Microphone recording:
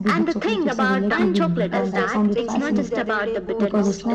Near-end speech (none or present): present